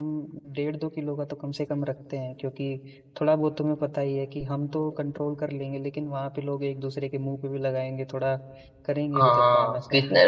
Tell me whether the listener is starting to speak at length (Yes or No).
Yes